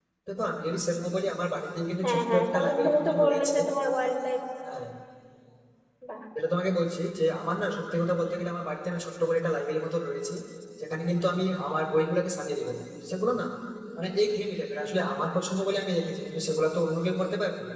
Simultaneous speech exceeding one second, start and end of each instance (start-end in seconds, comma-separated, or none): 2.0-3.6